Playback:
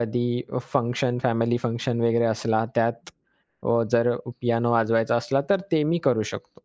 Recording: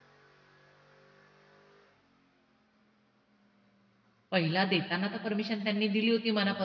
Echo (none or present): none